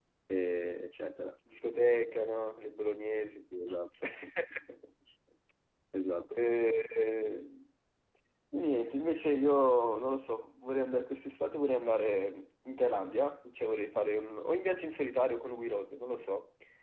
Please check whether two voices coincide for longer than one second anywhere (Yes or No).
No